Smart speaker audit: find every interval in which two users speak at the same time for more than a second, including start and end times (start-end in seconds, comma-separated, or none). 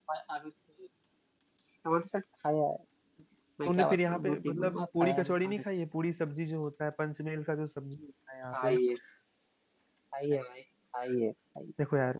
3.6-5.6